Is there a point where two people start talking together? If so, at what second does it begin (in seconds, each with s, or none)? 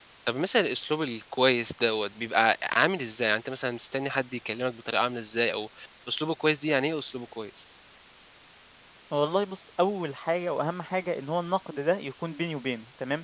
none